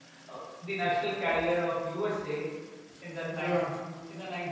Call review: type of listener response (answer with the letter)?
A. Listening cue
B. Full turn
A